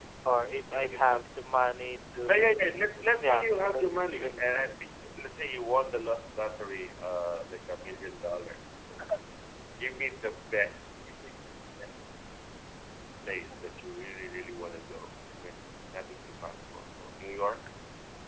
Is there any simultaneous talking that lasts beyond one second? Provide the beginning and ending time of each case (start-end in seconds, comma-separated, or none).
3.2-4.7